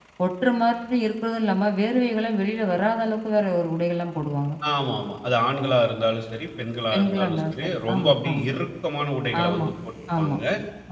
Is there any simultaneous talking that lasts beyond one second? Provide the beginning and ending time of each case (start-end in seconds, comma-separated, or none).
6.9-8.4